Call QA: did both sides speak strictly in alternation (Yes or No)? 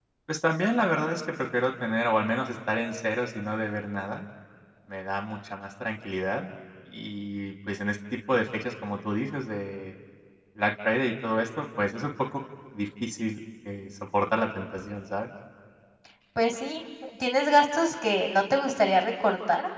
Yes